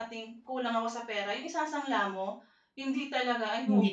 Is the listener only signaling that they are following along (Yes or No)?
Yes